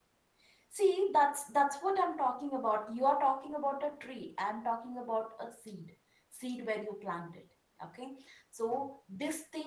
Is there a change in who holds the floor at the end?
No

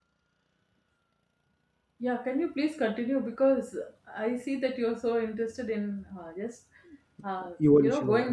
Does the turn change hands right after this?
No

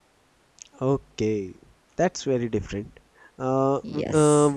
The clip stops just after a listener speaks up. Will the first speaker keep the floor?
Yes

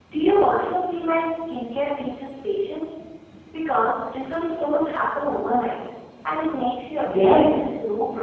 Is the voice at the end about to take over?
Yes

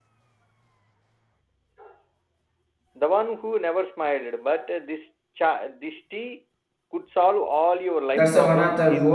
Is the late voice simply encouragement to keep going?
No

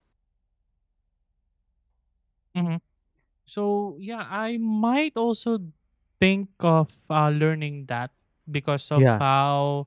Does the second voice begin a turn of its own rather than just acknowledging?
No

